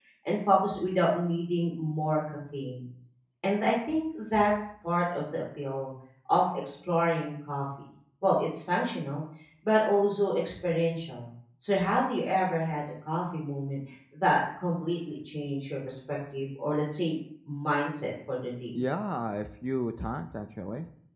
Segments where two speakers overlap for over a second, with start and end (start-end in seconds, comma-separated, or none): none